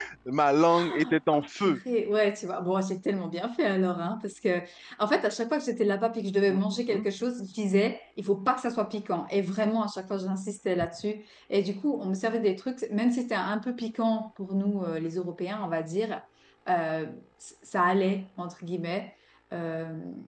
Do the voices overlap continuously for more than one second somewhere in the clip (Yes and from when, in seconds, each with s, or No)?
No